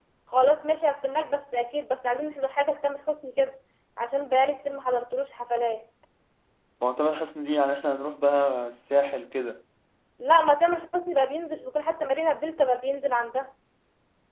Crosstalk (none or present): none